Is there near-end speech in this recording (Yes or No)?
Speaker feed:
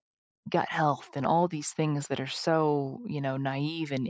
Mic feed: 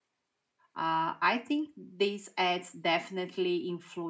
Yes